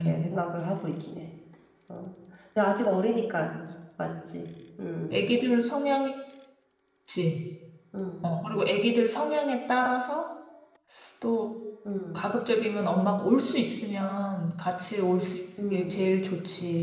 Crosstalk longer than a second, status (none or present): none